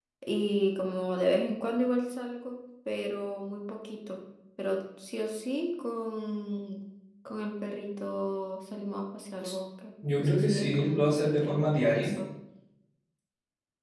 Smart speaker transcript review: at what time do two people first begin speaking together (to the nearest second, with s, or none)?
10 s